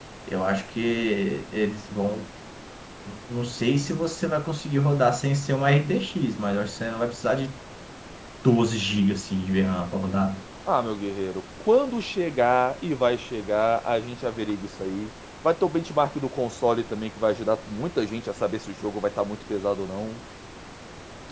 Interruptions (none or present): none